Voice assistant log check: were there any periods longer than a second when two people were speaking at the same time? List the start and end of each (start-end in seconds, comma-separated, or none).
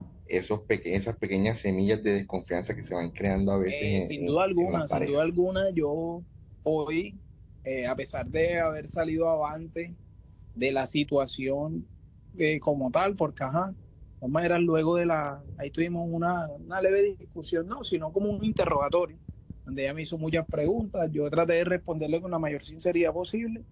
3.7-5.2